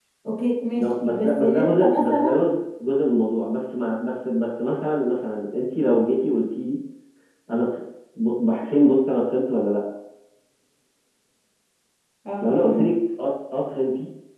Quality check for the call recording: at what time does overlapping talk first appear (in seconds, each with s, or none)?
0.8 s